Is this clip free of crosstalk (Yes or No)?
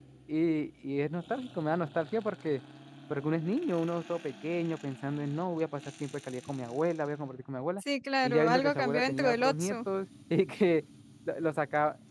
No